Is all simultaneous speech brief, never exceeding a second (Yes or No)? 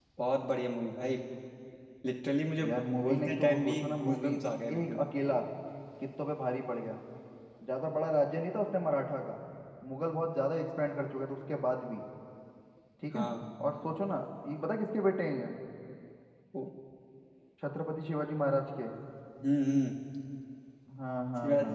No